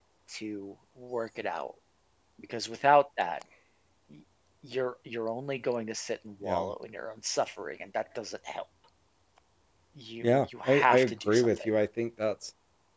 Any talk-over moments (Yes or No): Yes